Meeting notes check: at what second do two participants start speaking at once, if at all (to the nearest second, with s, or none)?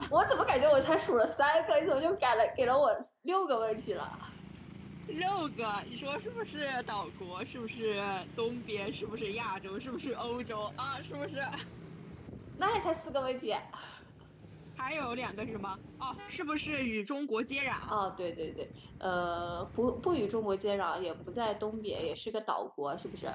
none